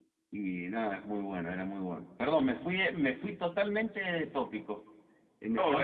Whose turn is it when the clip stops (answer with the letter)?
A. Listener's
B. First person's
A